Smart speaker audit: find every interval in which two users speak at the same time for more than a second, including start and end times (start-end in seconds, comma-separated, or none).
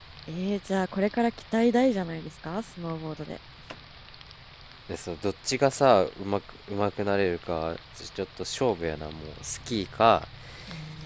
none